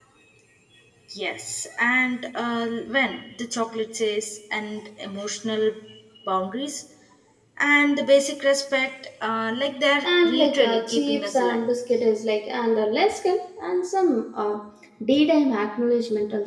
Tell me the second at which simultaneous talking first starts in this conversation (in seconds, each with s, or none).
10.0 s